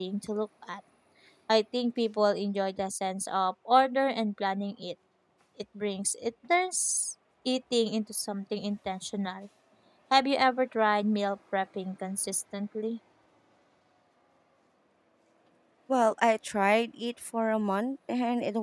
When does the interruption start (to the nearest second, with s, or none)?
none